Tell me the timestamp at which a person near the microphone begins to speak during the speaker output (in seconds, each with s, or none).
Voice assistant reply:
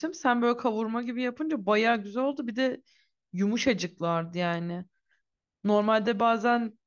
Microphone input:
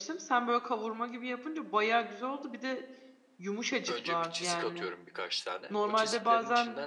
3.9 s